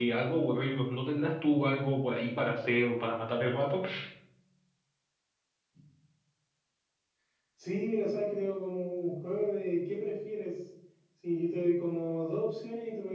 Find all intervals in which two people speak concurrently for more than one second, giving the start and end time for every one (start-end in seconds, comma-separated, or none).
none